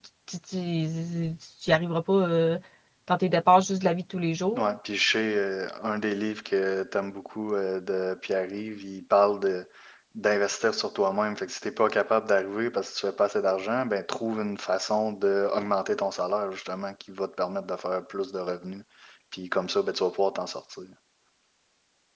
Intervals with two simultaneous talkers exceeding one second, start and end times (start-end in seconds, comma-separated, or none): none